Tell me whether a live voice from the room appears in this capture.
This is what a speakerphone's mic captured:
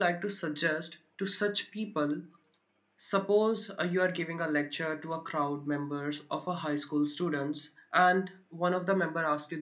Yes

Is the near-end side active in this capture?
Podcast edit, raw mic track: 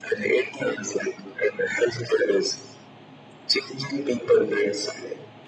No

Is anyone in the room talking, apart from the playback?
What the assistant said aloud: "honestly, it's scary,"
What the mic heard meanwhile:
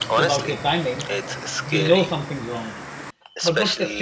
Yes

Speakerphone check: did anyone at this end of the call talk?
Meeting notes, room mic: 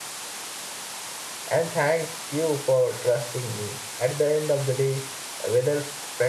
Yes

